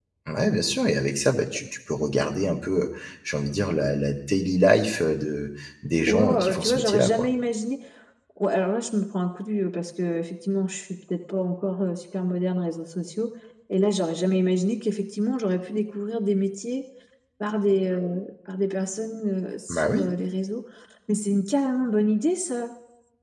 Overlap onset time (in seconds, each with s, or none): 6.1 s